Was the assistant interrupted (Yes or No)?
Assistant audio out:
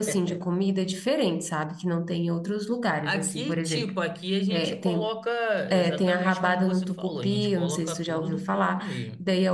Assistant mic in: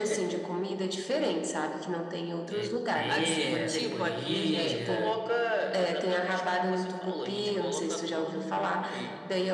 Yes